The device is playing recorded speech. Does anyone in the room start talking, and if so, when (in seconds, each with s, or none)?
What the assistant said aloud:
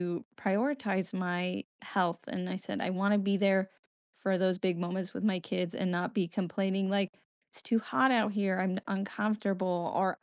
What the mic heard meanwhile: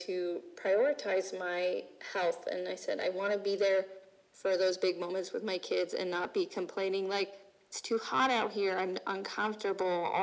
none